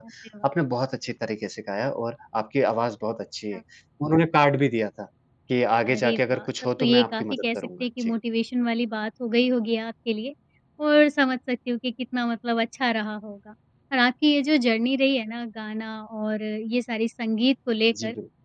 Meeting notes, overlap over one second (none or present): present